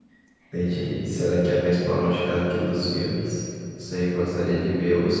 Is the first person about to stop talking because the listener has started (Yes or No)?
No